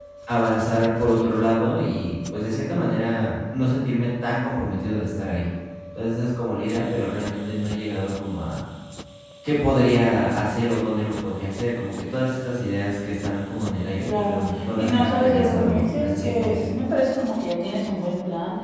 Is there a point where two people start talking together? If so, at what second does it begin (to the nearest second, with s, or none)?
14 s